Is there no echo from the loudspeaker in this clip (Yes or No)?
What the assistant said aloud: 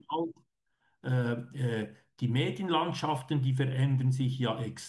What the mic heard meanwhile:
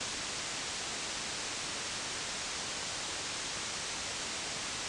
Yes